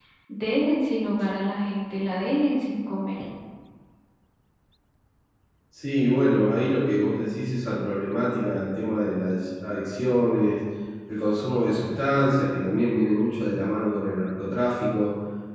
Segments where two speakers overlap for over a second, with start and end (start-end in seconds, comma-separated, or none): none